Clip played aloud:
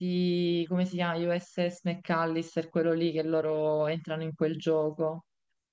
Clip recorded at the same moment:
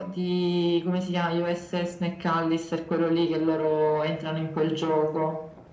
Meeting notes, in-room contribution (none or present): none